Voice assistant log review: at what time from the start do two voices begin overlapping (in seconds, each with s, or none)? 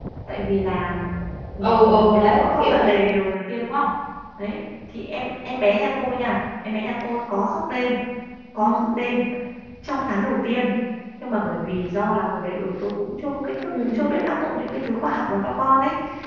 1.6 s